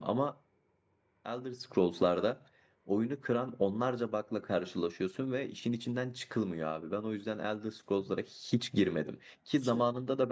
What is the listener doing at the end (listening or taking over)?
listening